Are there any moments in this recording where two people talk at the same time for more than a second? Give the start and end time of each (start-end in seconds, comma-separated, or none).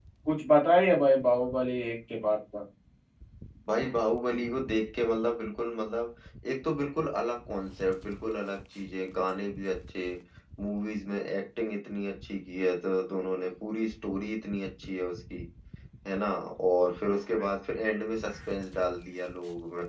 none